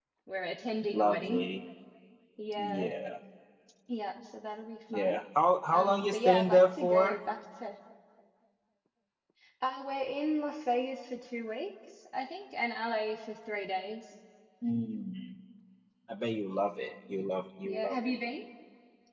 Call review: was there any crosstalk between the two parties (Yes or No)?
Yes